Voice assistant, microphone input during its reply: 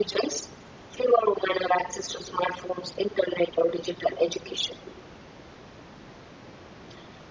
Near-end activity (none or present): none